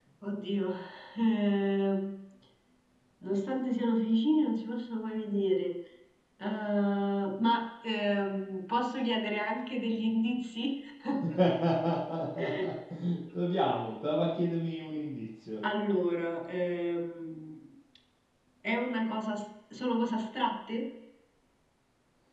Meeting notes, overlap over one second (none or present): none